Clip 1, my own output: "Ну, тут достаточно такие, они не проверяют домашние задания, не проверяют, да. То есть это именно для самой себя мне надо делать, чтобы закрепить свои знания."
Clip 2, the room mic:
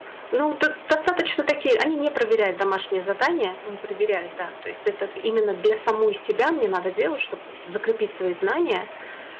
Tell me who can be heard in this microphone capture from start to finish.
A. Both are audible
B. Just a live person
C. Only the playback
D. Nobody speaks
C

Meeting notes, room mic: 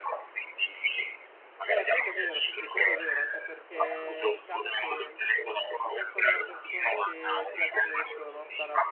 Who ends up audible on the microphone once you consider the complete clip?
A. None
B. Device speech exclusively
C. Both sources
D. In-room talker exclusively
C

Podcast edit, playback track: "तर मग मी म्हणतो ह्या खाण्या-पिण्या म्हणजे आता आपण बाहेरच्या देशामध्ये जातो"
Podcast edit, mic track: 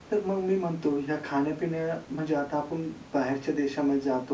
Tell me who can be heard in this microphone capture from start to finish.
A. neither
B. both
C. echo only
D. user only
C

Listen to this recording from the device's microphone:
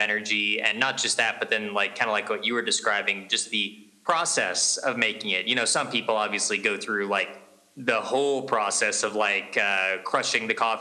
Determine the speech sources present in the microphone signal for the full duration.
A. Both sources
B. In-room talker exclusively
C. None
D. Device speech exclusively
D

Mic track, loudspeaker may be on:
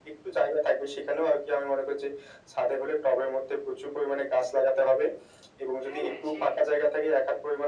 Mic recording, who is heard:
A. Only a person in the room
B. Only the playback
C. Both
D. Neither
C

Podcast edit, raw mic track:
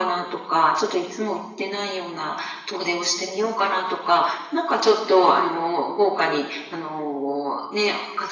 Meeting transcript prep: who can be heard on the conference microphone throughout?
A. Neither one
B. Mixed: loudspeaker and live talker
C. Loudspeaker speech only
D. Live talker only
C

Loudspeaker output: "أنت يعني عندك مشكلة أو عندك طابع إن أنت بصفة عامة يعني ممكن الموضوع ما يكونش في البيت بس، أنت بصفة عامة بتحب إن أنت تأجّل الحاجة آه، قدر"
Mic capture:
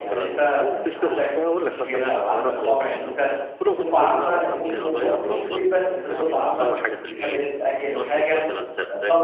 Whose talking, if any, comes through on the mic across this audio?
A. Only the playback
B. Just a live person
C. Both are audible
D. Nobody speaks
C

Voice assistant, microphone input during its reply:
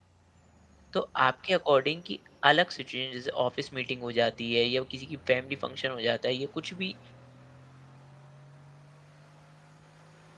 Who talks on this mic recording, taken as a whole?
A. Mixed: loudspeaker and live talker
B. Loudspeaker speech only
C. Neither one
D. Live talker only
D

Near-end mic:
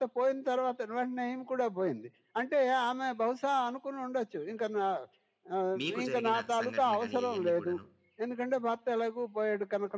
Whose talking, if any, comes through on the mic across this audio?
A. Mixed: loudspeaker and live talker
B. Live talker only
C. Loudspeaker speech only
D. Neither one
A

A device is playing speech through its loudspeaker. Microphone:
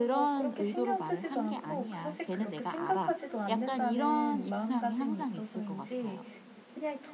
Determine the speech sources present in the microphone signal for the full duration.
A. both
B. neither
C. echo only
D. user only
A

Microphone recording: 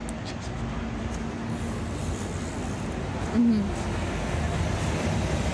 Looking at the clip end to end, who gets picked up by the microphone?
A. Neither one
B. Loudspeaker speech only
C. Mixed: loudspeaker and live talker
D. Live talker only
D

